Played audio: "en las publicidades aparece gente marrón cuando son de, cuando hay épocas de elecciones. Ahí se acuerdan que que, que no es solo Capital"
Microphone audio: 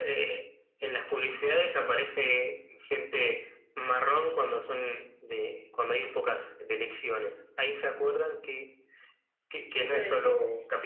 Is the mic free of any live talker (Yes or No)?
No